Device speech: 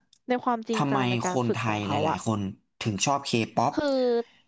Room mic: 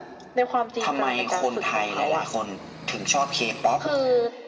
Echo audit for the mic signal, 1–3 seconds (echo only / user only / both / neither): echo only